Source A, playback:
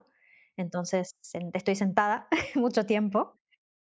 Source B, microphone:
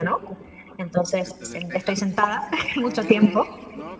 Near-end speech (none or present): present